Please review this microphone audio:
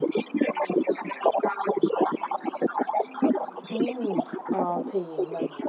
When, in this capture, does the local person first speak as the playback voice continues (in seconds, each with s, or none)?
3.7 s